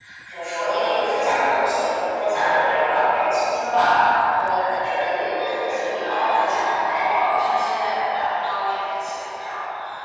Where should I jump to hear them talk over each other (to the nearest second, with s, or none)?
5 s